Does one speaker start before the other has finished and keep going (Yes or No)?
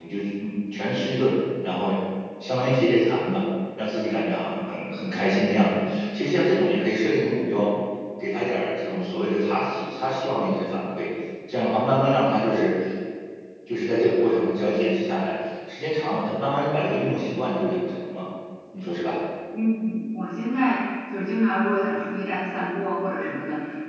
No